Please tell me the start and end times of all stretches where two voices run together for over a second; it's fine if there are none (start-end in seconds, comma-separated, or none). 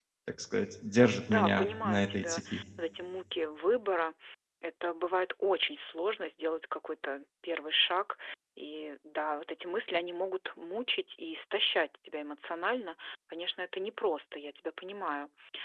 1.3-2.6